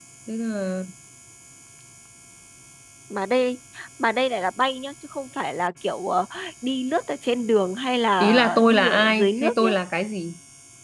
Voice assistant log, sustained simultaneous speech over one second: present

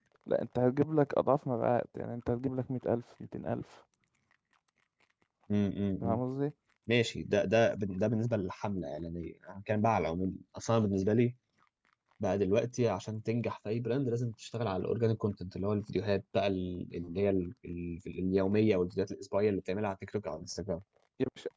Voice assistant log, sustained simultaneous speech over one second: none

